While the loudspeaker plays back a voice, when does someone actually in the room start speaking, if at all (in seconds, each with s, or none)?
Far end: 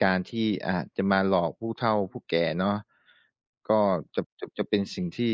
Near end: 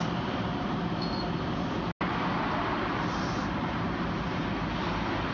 none